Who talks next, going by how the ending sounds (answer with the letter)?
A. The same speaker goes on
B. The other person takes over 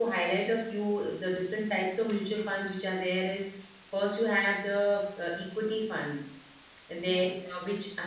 A